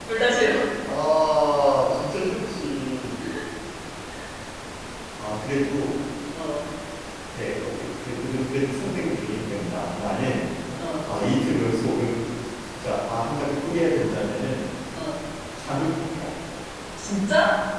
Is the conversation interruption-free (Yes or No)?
Yes